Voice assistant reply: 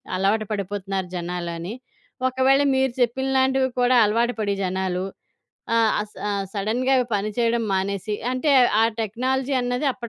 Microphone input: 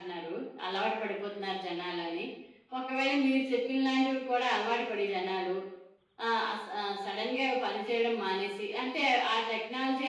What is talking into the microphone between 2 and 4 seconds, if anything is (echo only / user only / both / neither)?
echo only